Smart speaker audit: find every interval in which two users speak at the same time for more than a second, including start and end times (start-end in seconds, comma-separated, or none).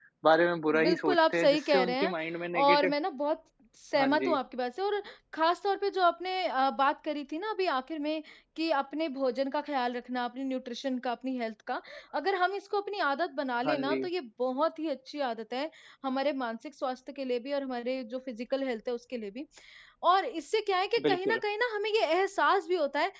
0.8-2.1